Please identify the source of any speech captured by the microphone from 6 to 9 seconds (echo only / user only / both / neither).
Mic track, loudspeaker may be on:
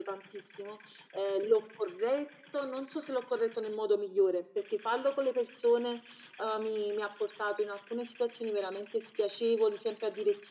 echo only